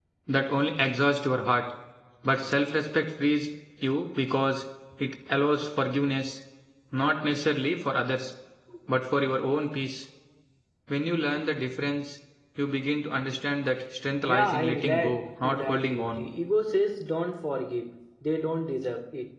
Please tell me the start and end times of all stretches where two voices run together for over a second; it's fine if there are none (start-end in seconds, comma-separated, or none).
14.3-16.3